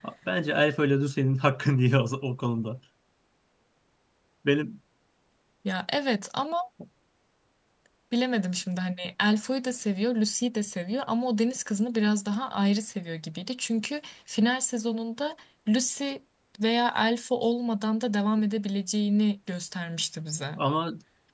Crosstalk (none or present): none